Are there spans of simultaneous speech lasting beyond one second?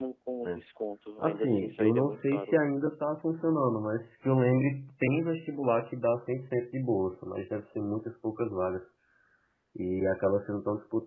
Yes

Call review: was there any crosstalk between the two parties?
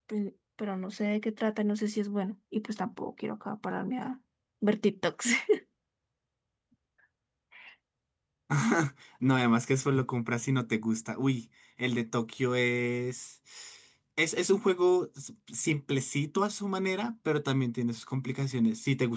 No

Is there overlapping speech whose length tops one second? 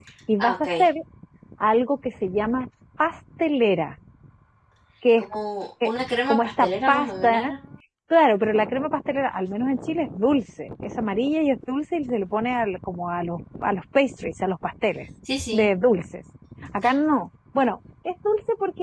Yes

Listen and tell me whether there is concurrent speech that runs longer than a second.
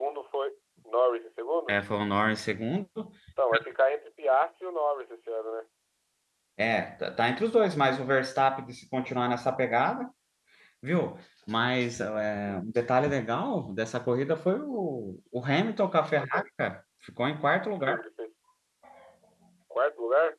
No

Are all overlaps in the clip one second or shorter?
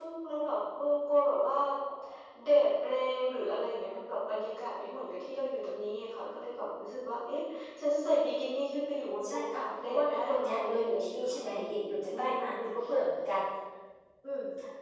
No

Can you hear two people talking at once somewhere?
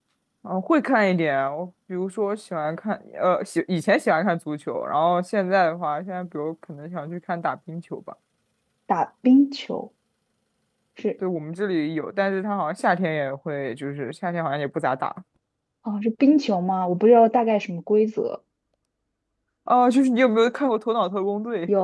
No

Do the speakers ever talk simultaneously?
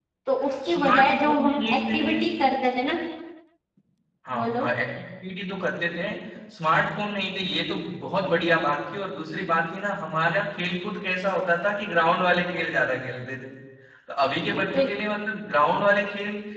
Yes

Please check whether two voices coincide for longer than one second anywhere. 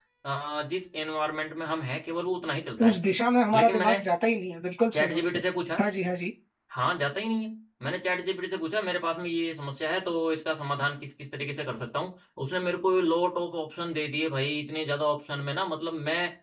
No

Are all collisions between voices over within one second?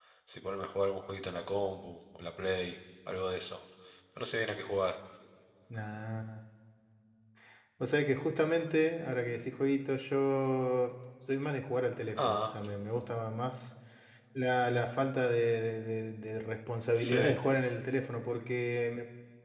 Yes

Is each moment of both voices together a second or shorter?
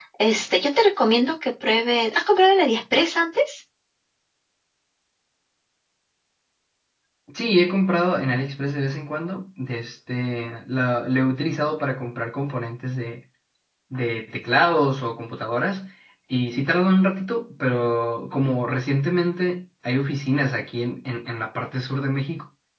Yes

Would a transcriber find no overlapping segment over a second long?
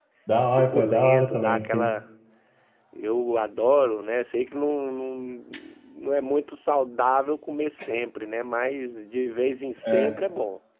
No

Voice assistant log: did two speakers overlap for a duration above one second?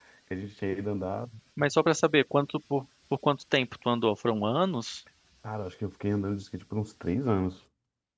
No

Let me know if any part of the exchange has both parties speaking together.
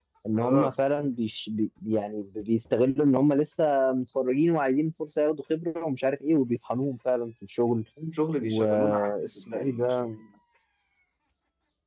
Yes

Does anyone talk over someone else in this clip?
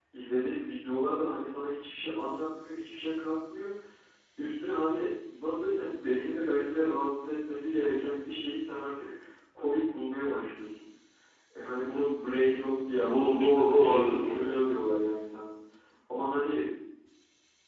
Yes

